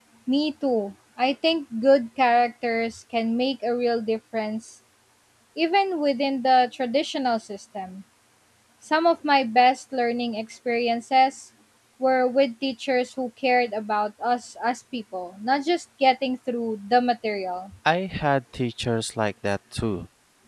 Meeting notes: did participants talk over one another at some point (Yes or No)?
No